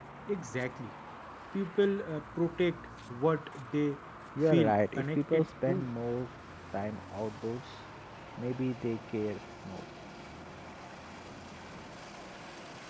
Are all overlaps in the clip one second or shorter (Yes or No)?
No